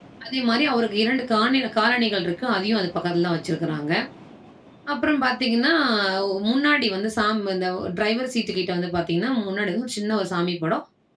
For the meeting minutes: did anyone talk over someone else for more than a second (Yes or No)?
No